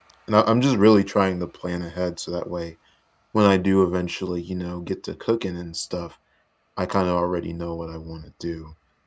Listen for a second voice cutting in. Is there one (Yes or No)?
No